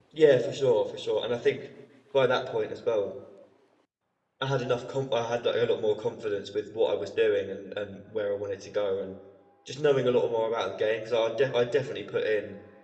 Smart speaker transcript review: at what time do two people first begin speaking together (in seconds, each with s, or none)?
none